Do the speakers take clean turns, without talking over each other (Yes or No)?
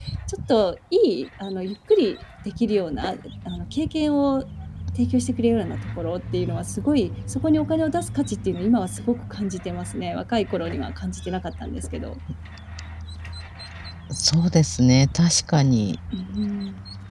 Yes